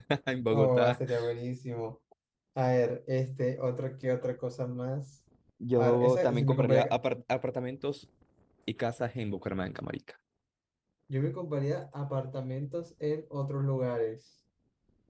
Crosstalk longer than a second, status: present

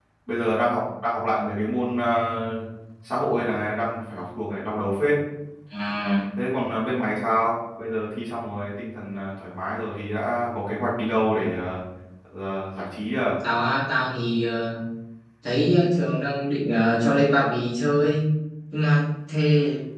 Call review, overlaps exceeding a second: none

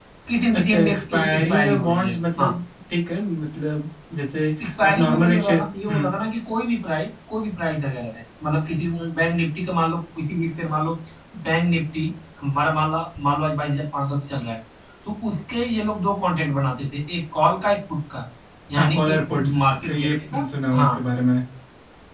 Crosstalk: present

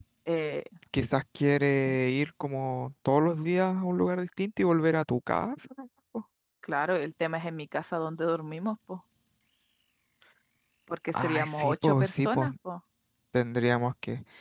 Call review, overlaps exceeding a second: present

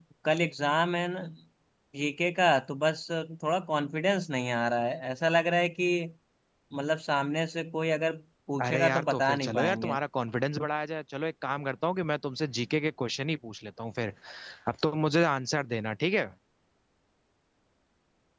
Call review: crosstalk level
present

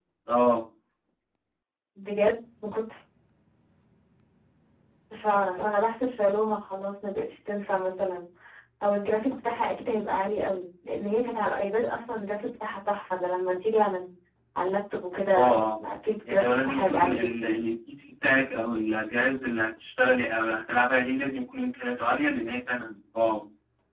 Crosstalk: present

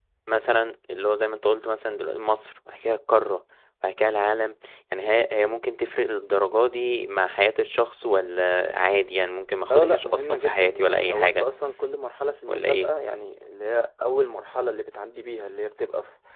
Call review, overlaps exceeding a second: present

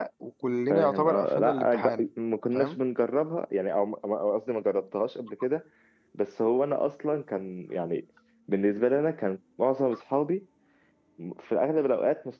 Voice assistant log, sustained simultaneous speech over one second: present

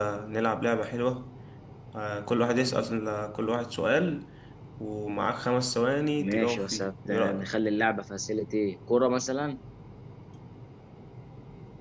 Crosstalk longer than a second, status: present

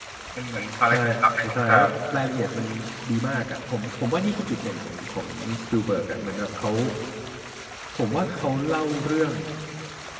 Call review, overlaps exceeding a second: none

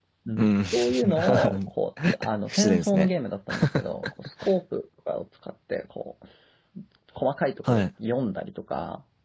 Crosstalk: present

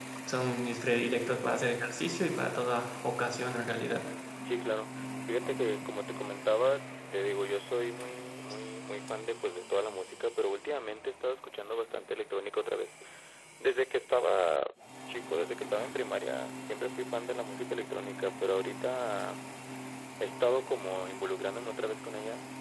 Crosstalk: none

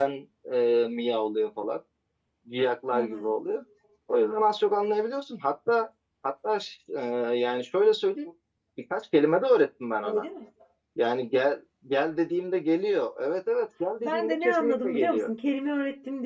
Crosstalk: present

